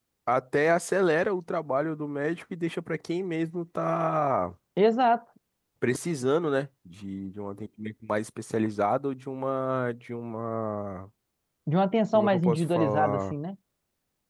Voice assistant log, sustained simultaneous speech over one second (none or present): present